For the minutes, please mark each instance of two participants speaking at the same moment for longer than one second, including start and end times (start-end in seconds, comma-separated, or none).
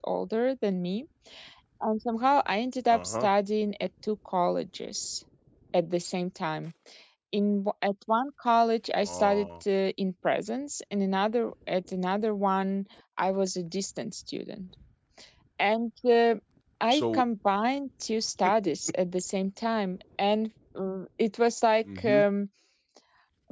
none